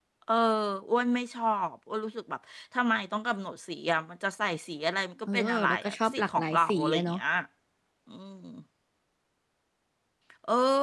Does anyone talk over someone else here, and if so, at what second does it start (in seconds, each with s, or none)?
5.3 s